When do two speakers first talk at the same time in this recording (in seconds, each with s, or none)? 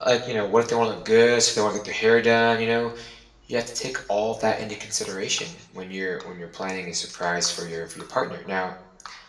none